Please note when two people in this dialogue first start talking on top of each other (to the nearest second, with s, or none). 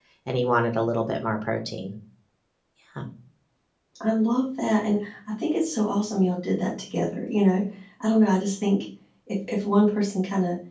none